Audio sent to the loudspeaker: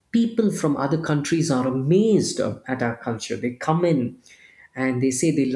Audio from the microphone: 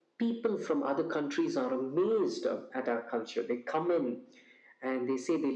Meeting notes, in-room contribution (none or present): none